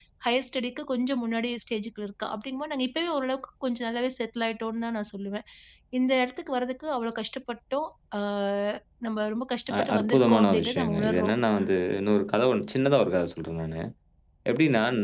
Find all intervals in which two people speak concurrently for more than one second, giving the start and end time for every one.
9.7-11.3

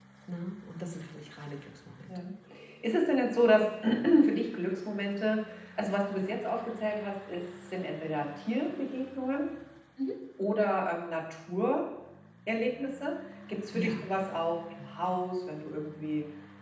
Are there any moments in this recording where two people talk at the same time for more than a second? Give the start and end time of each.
none

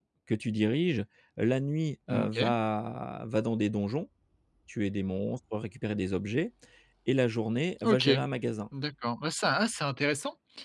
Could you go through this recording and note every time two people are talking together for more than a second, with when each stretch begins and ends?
none

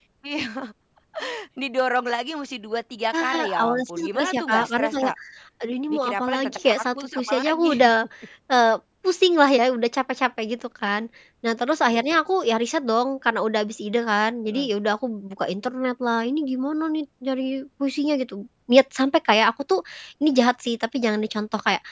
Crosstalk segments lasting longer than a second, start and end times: 3.2-5.1, 5.9-7.9

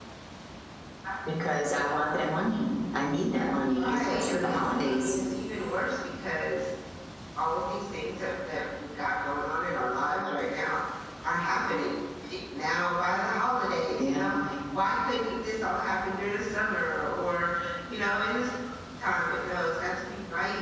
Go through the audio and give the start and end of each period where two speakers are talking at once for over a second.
3.7-5.2

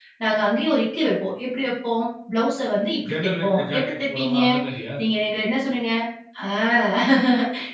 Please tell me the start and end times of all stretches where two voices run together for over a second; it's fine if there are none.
3.1-4.4

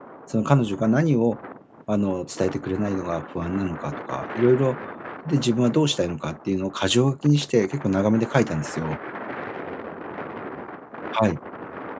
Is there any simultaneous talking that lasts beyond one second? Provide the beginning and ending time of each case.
none

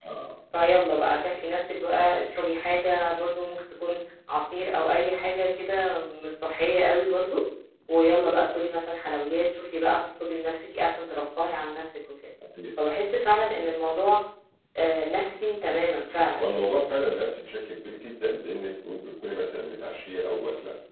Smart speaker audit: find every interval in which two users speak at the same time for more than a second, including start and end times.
none

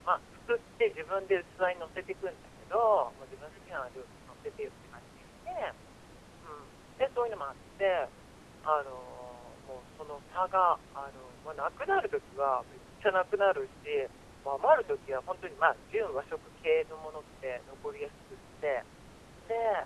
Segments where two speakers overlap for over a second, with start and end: none

